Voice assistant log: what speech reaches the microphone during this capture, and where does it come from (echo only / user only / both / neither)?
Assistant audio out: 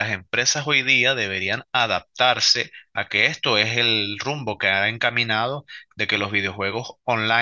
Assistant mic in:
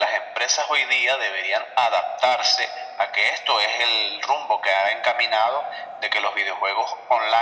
echo only